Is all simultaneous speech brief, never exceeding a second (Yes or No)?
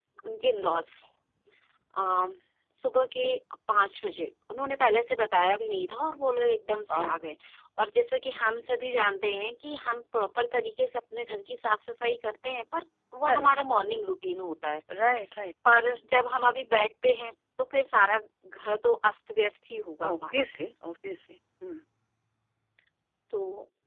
Yes